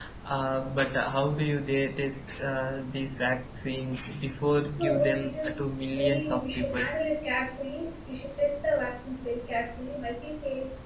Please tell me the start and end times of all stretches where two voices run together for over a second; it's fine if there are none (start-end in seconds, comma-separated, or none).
4.7-6.8